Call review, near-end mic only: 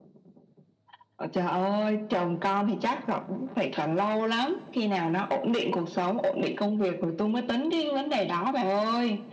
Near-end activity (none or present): none